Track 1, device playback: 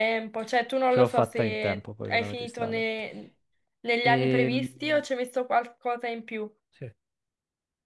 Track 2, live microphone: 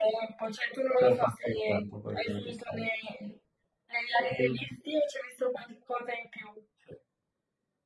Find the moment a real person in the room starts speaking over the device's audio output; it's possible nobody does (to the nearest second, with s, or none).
none